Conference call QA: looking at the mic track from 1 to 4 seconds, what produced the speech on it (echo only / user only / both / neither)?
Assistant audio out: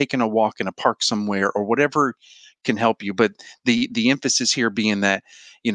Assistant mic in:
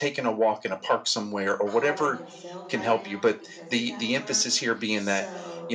both